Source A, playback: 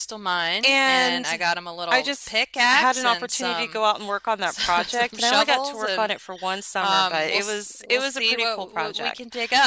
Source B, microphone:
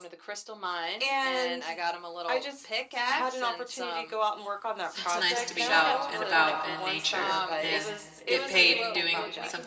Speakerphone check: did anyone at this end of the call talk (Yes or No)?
Yes